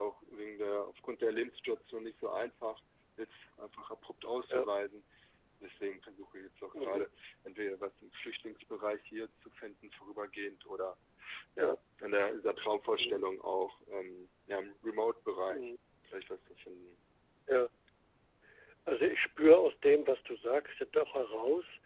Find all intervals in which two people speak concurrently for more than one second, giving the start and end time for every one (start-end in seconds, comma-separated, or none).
none